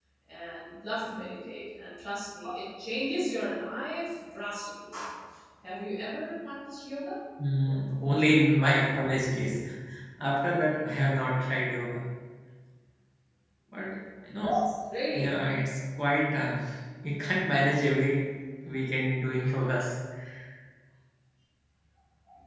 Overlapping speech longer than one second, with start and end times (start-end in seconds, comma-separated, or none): none